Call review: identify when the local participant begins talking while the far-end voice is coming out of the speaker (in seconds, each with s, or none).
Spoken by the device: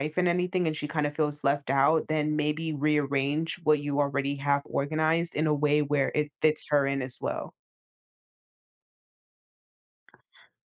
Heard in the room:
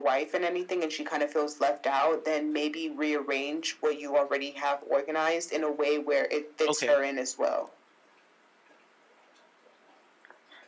6.7 s